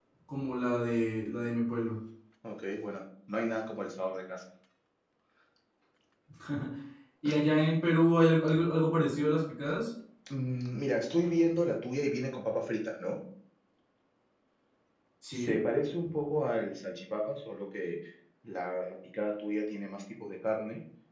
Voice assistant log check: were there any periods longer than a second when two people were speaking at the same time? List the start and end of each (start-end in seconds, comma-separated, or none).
none